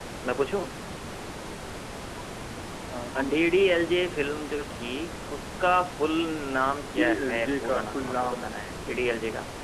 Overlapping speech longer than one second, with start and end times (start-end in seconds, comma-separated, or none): 7.0-8.4